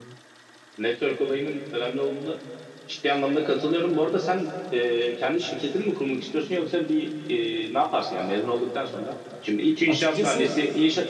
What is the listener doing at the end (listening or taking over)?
listening